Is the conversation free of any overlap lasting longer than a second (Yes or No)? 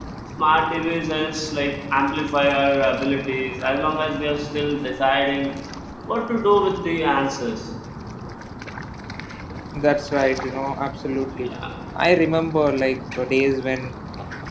Yes